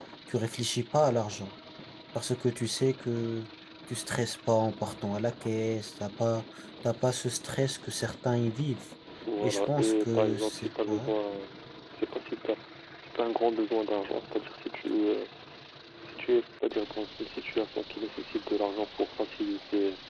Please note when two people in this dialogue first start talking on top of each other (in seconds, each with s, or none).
9.4 s